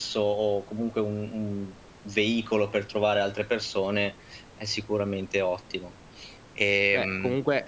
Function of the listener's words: taking over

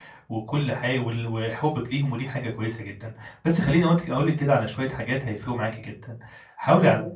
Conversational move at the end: listening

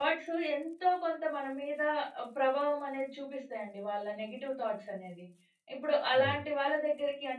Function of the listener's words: listening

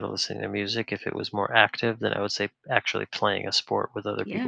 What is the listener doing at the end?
taking over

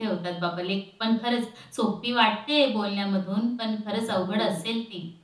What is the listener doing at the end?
taking over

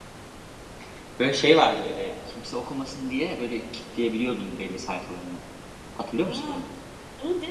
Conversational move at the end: taking over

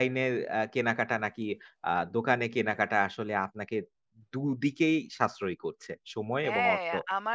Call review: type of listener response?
taking over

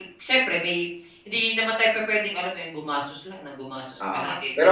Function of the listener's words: taking over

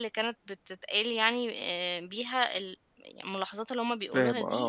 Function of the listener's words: taking over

